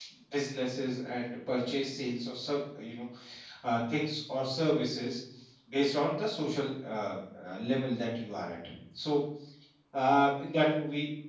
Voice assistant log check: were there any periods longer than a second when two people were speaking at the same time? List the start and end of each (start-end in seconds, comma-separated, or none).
none